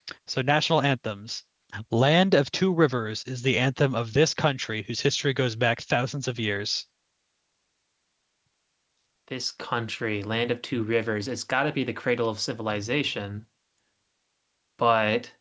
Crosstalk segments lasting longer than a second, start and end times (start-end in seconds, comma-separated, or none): none